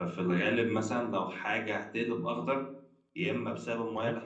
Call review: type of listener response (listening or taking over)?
listening